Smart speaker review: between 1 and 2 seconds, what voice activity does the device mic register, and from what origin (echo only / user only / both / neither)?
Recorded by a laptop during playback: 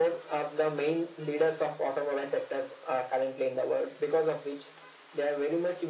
echo only